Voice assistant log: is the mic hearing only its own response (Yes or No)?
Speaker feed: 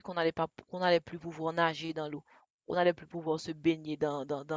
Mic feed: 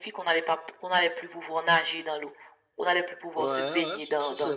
No